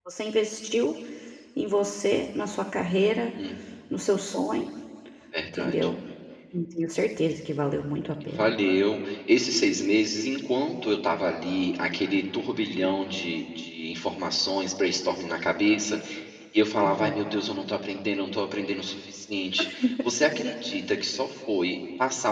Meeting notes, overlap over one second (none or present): none